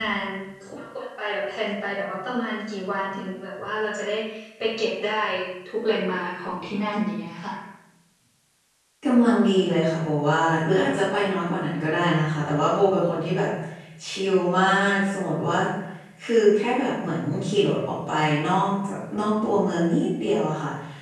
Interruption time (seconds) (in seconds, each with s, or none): none